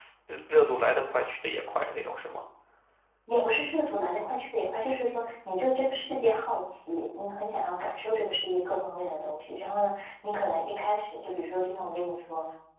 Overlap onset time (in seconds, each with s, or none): none